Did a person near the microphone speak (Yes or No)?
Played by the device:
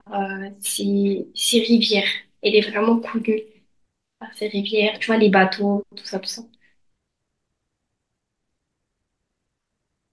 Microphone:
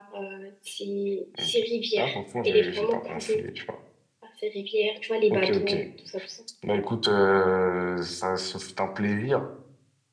Yes